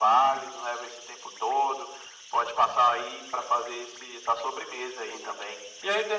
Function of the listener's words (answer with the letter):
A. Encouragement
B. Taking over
B